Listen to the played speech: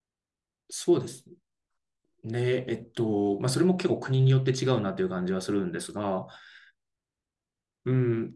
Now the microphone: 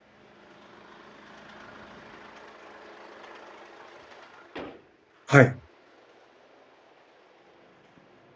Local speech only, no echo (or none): はい。